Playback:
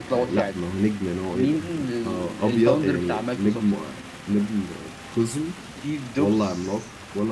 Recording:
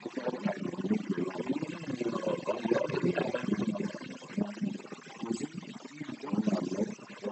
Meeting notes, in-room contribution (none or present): none